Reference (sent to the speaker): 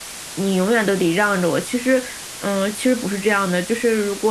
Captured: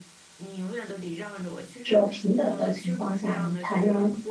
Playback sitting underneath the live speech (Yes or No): Yes